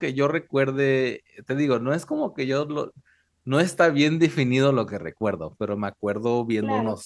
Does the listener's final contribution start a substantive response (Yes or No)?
No